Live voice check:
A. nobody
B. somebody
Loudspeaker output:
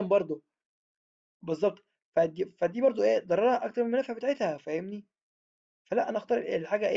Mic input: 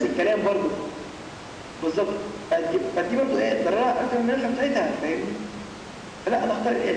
A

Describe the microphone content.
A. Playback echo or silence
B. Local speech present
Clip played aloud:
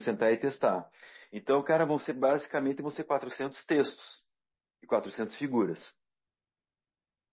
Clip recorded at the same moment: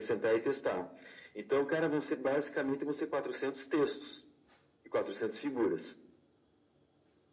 A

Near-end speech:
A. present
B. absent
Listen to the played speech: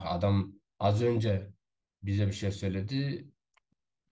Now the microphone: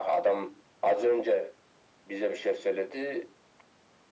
B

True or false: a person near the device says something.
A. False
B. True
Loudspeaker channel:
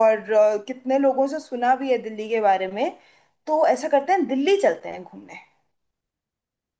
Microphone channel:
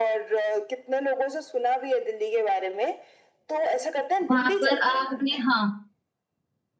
B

